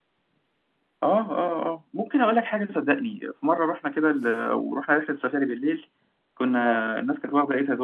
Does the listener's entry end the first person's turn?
No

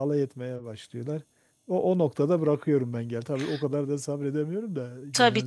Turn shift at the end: Yes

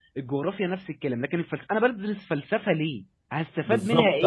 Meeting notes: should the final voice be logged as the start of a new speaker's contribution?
Yes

